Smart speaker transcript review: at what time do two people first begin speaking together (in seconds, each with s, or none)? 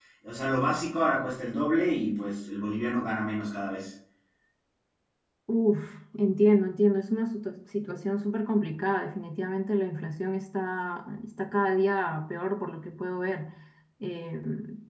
none